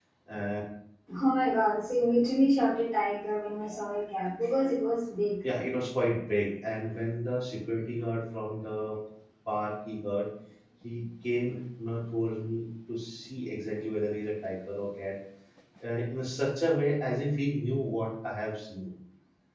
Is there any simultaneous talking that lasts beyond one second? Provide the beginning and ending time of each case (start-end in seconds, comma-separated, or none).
none